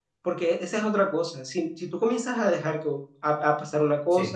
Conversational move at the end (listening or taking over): listening